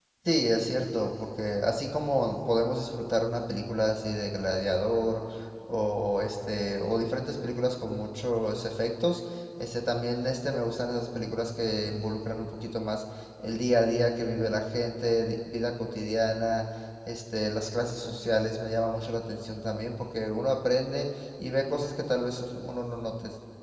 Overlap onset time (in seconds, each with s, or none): none